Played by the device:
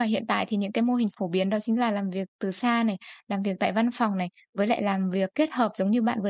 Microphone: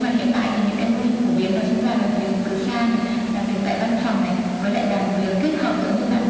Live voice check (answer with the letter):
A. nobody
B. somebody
A